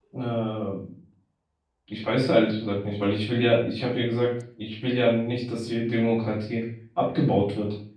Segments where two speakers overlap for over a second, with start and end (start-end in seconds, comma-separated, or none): none